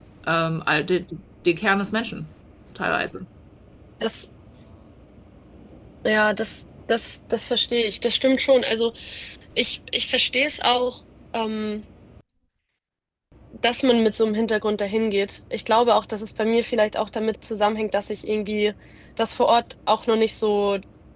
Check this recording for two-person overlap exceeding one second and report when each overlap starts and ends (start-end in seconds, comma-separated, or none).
none